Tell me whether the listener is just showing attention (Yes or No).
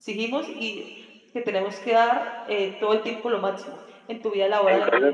No